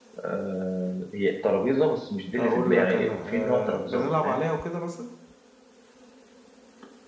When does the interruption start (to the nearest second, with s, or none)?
2 s